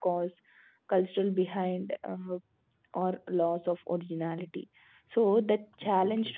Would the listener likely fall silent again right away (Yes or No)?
Yes